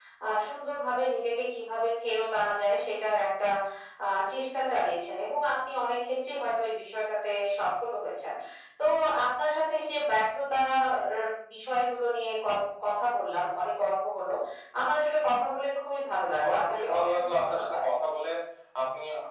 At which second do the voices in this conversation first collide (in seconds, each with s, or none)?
16.4 s